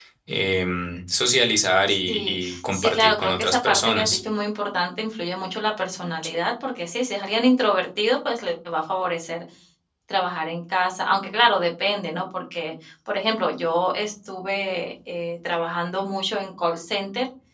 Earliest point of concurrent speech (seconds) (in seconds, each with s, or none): 1.9 s